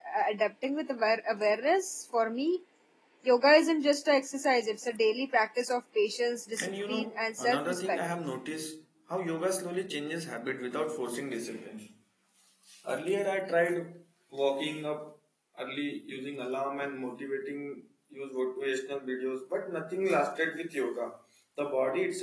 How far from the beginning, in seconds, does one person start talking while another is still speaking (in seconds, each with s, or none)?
6.6 s